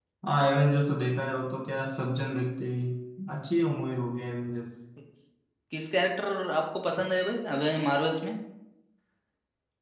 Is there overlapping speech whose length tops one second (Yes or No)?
No